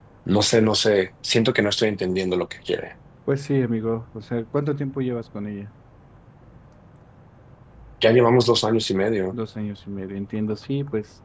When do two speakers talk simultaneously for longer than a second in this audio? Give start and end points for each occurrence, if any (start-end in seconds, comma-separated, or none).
none